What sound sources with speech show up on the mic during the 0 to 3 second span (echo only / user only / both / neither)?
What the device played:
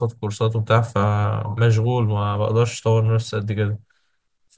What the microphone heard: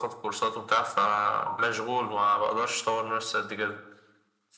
echo only